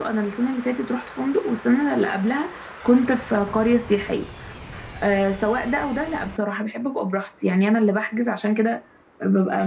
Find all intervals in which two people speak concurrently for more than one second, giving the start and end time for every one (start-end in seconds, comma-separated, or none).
none